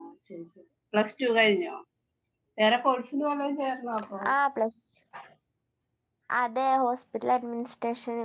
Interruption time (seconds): none

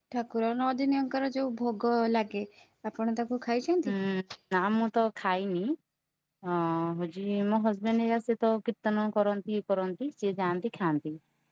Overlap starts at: none

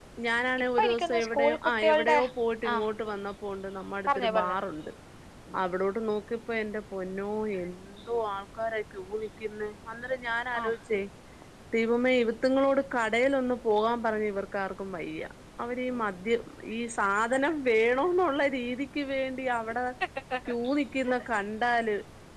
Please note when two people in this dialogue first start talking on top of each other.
0.8 s

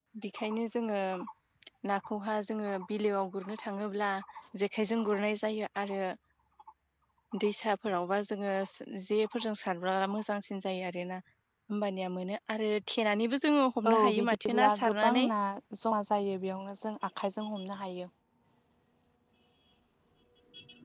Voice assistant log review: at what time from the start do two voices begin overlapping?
13.8 s

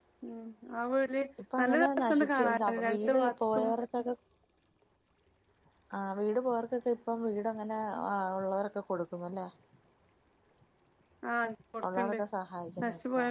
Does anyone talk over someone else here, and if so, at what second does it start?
1.6 s

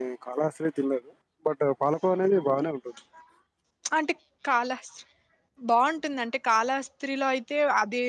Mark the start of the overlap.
none

